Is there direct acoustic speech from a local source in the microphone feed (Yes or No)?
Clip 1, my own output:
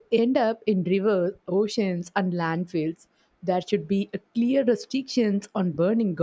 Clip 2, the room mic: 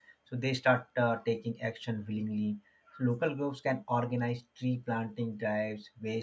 Yes